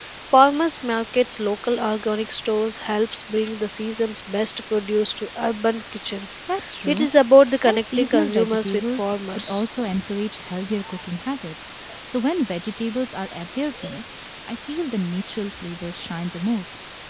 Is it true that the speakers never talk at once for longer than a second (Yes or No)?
No